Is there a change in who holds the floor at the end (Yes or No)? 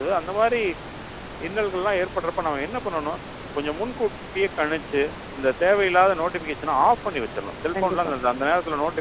No